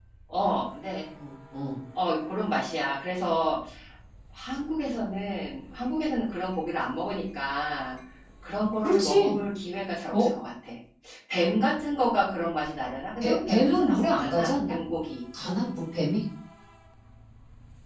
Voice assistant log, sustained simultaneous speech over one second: present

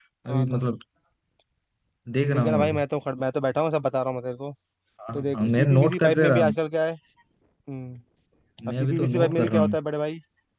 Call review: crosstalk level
present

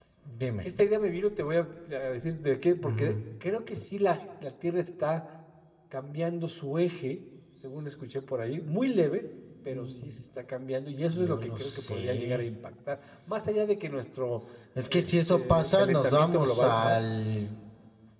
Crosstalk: present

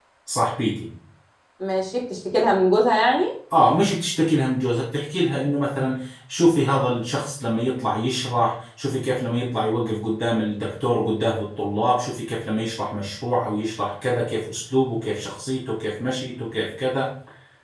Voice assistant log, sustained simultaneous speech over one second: none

